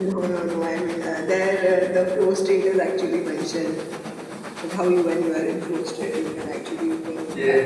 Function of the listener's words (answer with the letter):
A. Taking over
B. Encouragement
A